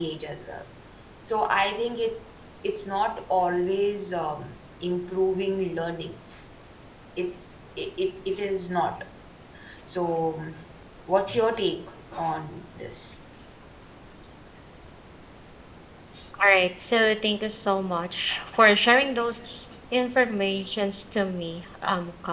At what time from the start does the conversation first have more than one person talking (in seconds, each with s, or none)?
none